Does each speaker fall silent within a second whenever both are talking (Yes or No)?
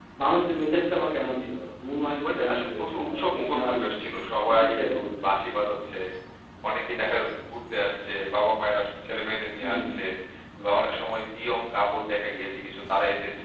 No